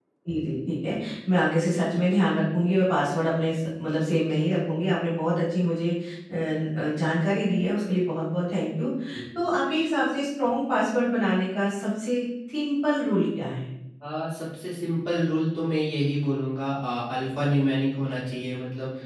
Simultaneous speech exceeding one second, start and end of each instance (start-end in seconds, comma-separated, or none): none